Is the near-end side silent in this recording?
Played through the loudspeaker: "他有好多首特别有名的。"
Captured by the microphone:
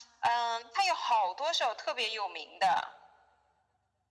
Yes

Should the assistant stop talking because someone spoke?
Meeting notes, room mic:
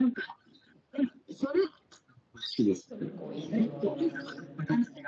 Yes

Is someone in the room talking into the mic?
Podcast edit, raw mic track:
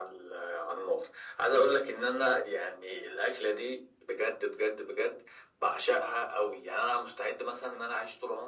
No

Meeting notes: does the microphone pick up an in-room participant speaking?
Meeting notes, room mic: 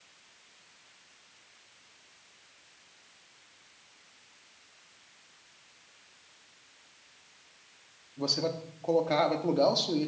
Yes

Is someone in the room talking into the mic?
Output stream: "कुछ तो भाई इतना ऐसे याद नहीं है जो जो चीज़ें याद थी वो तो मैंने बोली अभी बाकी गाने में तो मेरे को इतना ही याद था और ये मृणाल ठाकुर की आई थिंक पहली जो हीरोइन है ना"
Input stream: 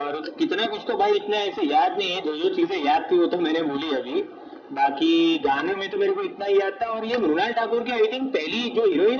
No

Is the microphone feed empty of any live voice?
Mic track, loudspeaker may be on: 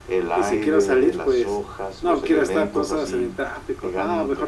Yes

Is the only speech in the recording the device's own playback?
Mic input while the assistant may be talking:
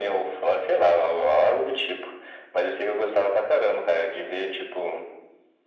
Yes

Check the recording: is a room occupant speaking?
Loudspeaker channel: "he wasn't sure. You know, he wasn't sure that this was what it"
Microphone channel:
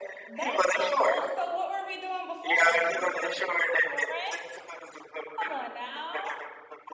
Yes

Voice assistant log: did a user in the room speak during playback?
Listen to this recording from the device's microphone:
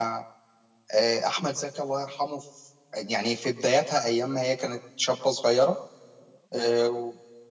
Yes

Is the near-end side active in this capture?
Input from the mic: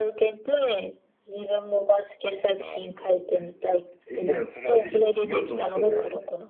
No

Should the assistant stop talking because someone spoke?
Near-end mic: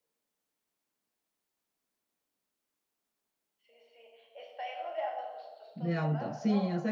Yes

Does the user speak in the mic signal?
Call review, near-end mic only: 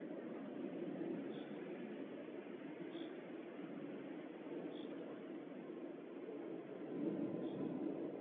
No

